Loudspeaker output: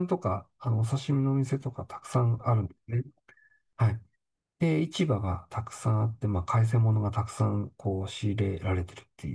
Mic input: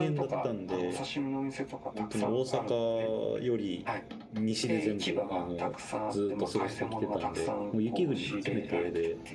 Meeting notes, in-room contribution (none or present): present